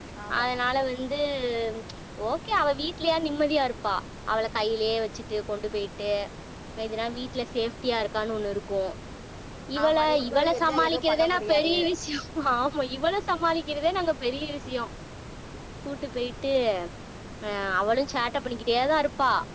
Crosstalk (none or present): present